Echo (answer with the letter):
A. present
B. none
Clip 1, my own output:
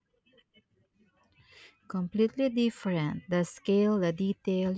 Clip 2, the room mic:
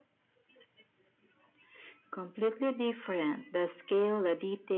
A